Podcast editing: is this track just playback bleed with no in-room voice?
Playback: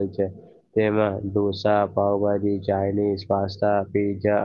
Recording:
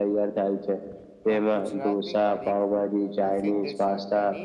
No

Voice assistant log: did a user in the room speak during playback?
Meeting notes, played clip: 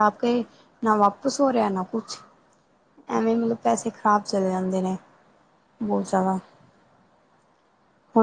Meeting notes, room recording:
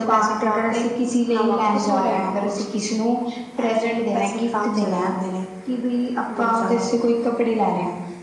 Yes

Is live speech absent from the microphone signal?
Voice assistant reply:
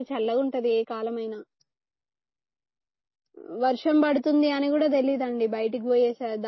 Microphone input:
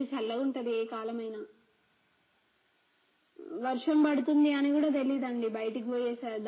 Yes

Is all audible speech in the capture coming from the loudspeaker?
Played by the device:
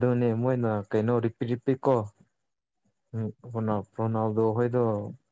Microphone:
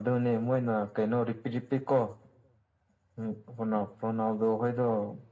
Yes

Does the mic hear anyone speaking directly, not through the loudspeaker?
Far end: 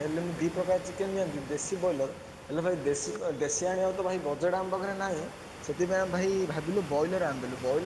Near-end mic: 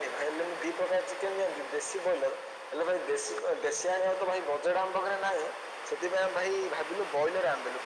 No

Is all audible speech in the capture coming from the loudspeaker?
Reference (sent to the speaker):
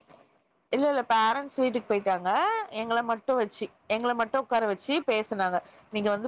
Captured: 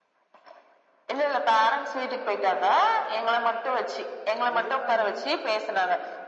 No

